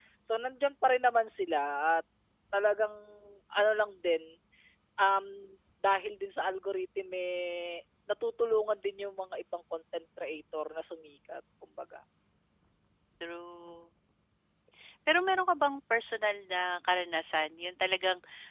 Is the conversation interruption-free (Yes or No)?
Yes